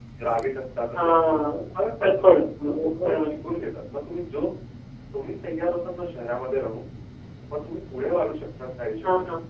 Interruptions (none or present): present